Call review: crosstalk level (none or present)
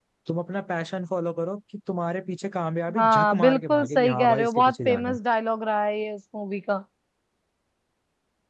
present